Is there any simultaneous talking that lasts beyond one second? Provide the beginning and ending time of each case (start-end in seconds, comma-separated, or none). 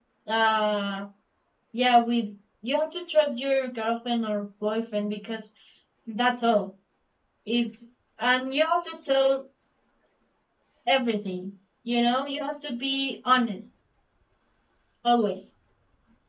none